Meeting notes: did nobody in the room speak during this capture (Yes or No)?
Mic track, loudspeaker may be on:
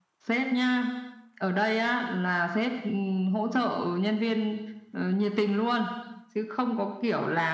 Yes